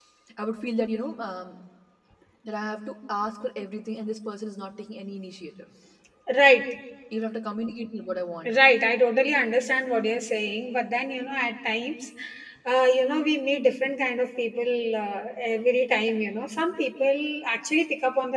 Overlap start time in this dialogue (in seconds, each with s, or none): none